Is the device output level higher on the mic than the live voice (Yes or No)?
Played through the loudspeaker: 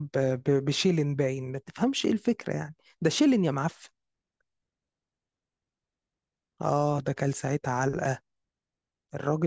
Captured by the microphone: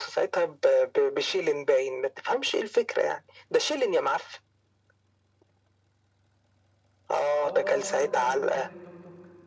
Yes